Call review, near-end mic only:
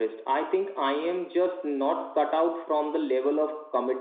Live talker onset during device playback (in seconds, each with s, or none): none